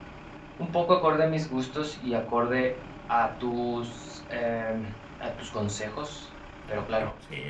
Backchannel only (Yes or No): No